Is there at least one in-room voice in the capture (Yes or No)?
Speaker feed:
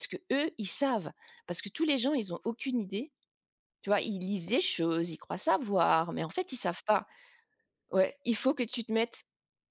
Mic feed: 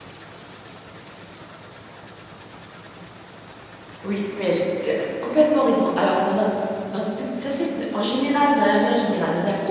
Yes